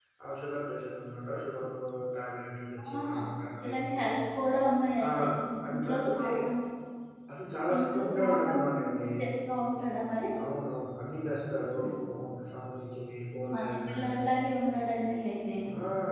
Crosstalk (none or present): present